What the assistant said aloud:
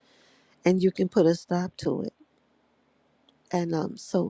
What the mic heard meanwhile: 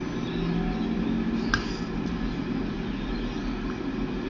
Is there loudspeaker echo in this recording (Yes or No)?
No